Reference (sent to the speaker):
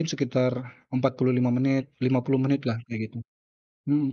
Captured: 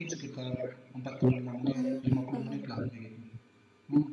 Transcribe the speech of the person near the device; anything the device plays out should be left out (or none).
Eee, paham.